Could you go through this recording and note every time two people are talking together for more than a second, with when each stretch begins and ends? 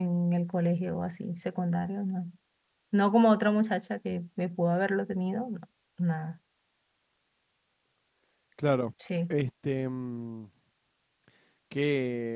none

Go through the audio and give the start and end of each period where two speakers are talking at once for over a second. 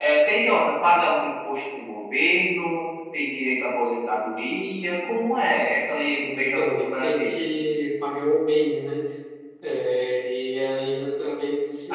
6.1-7.3

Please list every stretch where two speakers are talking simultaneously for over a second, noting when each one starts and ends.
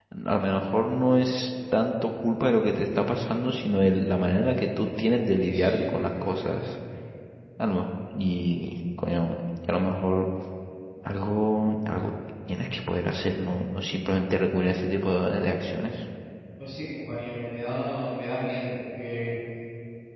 5.5-6.7

